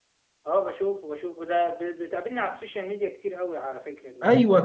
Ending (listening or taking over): taking over